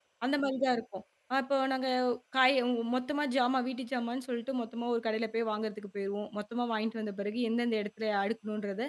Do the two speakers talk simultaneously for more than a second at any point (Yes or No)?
No